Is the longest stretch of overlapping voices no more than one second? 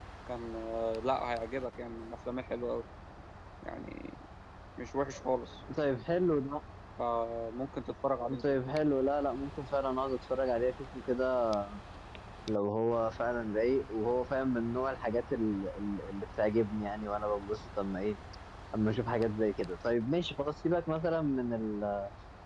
Yes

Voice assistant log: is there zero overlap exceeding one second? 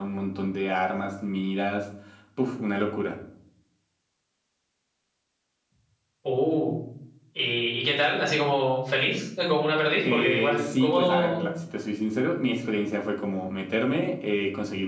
No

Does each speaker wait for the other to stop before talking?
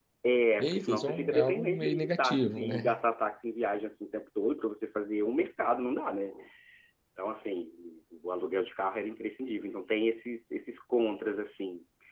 No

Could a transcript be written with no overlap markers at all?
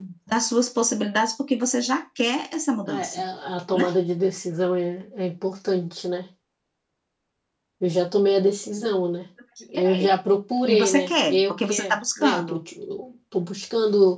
No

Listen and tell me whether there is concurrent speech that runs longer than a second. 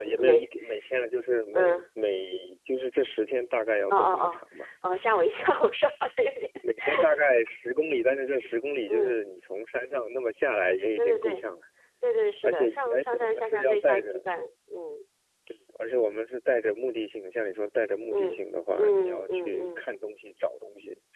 Yes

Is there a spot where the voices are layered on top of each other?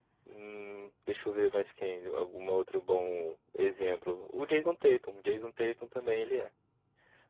No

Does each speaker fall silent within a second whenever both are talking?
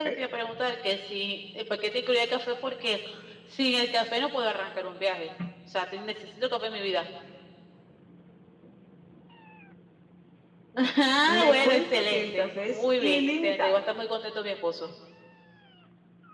No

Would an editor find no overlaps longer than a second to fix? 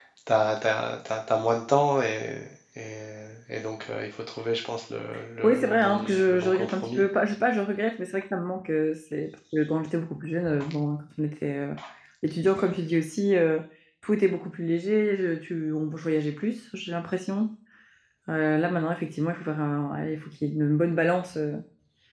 No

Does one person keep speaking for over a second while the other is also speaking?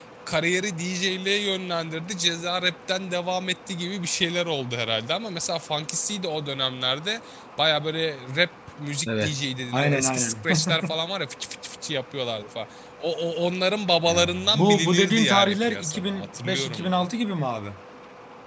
Yes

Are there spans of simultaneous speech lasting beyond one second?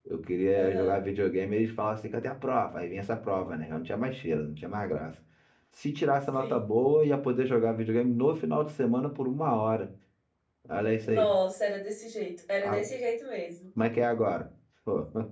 No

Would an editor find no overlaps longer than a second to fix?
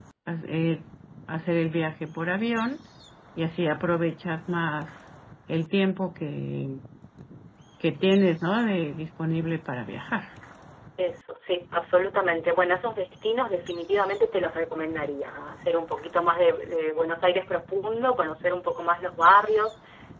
Yes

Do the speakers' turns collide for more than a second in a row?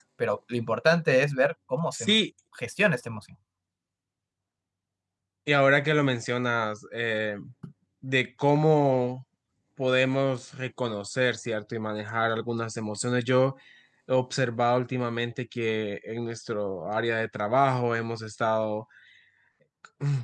No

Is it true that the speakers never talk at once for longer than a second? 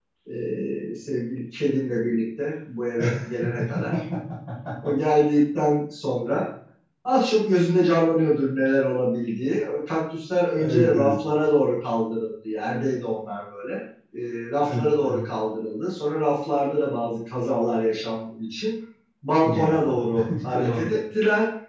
No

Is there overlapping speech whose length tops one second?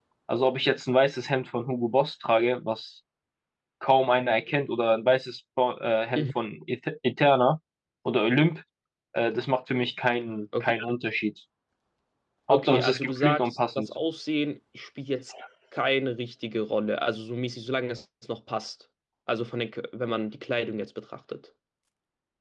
Yes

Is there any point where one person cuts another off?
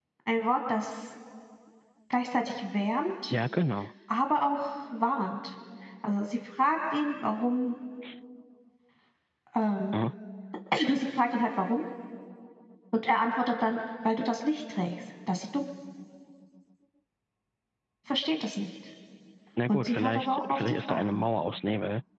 Yes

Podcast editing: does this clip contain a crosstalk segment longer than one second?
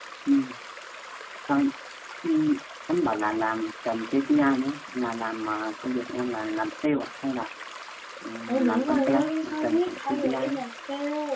Yes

